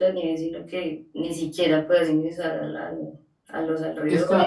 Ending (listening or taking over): taking over